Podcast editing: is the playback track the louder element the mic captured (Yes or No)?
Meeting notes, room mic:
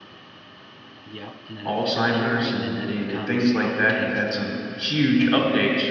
No